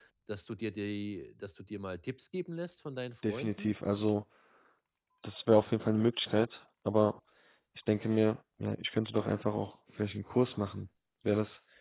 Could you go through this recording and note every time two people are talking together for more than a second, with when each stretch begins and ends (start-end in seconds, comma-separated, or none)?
none